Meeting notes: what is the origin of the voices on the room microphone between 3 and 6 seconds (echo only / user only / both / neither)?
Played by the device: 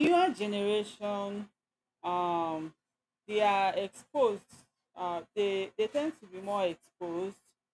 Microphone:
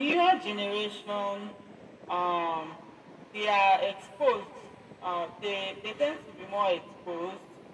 echo only